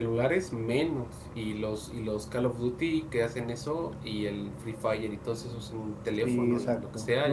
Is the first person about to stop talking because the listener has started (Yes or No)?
Yes